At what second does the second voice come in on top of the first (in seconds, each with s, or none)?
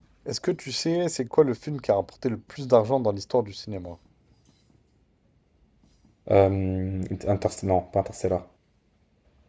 none